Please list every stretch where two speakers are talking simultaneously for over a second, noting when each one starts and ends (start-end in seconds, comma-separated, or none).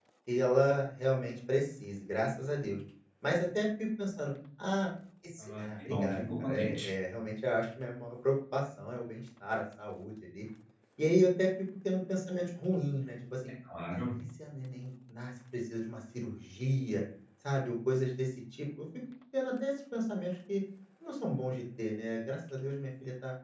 5.4-6.9